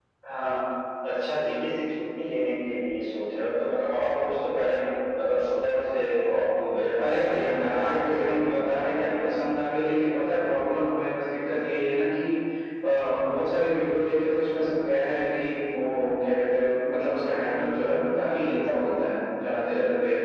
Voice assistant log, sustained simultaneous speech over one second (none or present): present